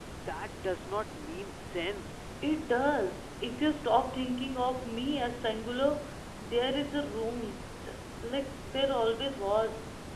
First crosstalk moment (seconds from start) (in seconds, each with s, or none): none